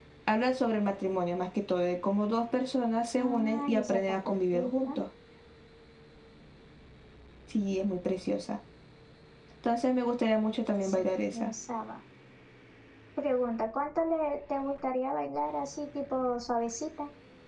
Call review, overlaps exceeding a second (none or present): present